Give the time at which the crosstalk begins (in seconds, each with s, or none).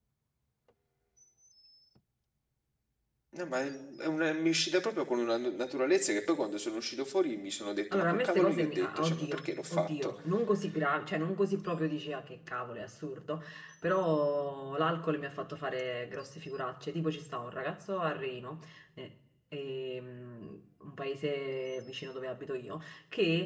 7.9 s